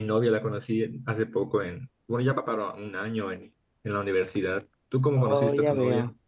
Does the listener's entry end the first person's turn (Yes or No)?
Yes